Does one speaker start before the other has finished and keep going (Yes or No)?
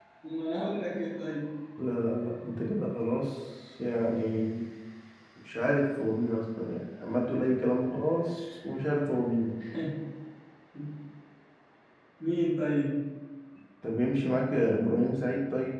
No